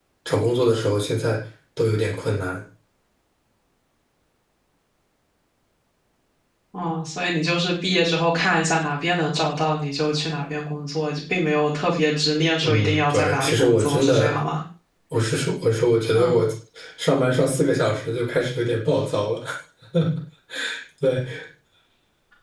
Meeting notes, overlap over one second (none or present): present